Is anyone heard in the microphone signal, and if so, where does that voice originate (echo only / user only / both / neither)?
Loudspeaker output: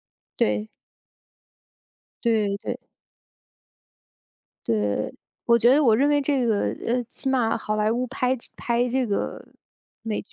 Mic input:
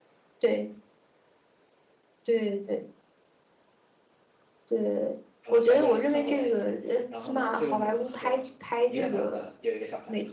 both